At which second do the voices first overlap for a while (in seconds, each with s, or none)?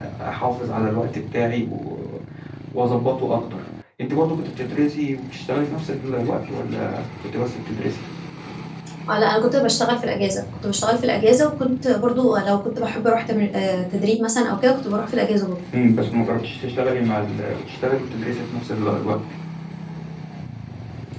none